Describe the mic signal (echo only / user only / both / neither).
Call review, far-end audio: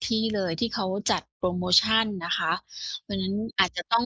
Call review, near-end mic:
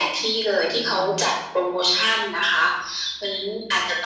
both